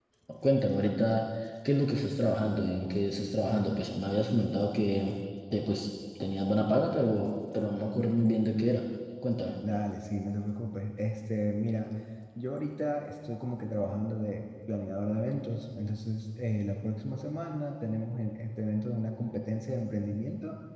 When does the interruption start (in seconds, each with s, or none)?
none